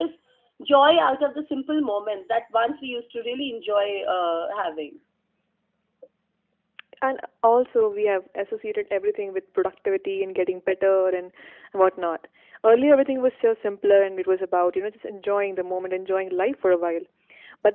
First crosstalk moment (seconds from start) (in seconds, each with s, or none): none